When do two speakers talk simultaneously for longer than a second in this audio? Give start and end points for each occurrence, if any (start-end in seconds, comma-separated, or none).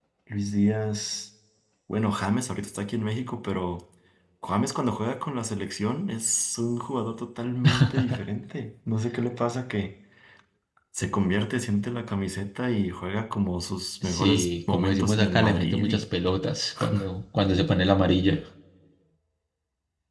14.0-16.1